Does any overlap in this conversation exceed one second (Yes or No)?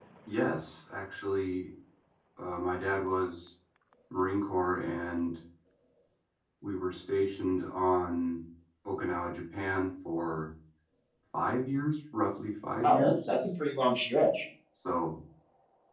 No